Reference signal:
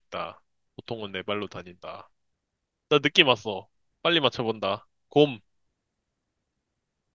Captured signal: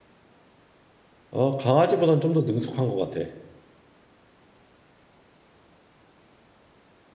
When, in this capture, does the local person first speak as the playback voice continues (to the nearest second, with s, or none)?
1 s